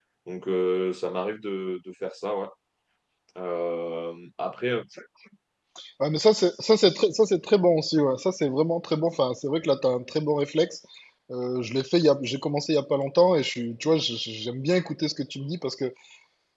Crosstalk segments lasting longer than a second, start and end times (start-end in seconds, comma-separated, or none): none